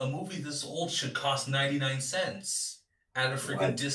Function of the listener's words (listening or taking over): listening